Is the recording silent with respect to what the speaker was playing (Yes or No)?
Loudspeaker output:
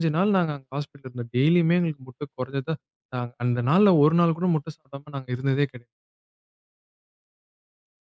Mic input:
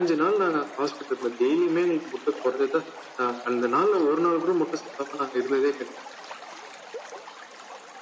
No